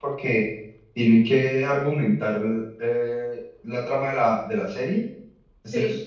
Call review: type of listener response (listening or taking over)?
listening